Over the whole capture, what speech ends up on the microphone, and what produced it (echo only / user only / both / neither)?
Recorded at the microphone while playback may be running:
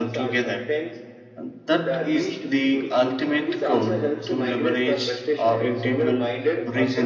both